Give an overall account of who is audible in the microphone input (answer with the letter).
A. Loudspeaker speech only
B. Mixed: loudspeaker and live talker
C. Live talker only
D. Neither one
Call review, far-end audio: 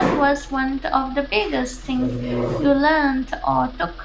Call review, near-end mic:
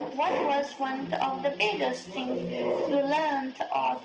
B